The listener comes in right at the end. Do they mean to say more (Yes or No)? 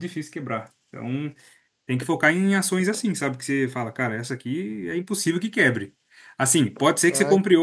No